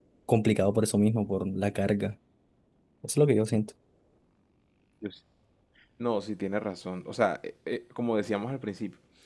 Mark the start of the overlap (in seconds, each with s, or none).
none